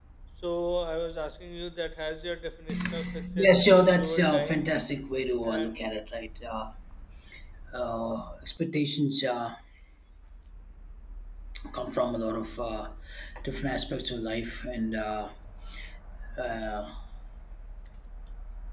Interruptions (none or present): present